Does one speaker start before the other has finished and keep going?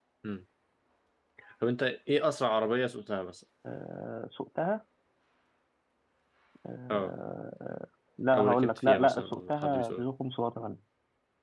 Yes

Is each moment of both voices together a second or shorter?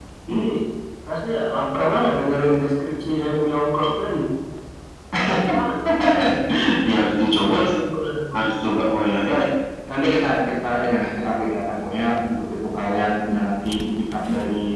Yes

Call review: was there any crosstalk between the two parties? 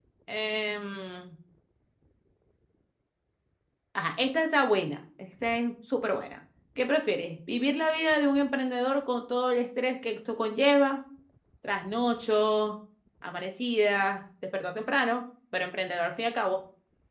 No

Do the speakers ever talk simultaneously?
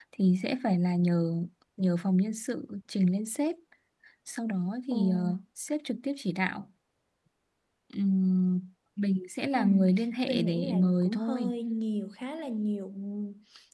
Yes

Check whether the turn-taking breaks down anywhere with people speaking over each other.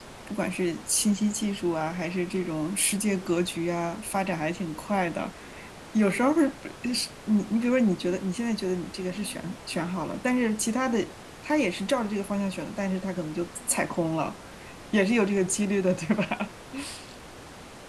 No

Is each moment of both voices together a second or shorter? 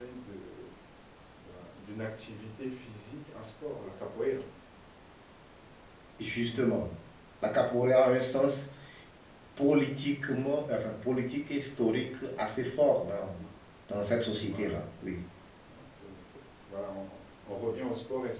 Yes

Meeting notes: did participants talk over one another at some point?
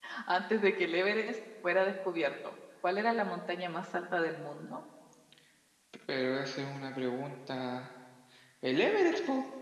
No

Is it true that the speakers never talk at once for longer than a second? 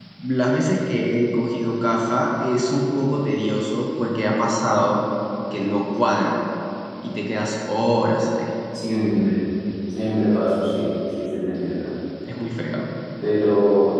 Yes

